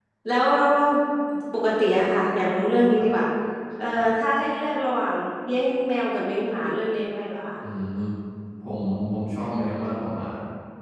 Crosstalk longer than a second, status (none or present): none